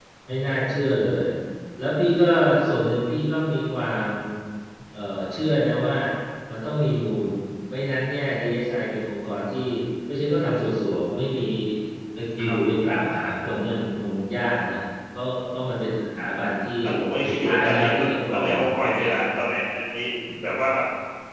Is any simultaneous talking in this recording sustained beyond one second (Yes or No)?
Yes